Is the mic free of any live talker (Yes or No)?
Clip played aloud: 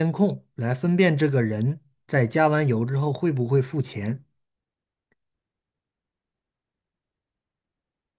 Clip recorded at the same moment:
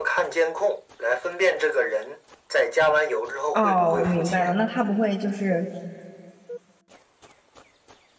No